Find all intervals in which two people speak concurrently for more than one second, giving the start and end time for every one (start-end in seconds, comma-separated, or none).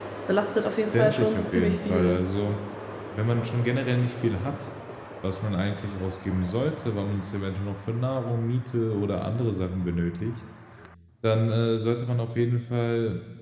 0.9-2.2